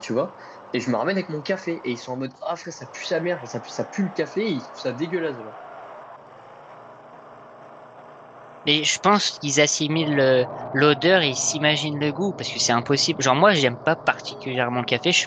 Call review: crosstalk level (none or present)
none